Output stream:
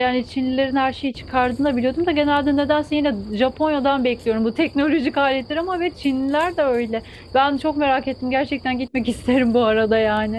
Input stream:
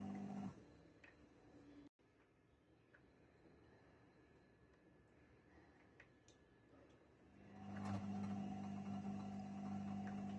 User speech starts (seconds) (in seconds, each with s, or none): none